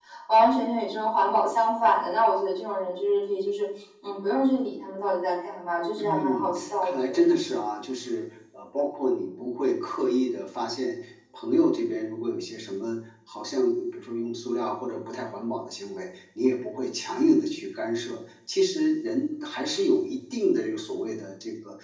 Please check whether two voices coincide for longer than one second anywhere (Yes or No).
Yes